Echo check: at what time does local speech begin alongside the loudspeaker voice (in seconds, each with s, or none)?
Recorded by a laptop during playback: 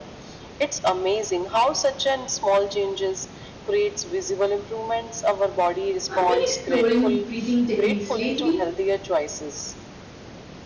6.1 s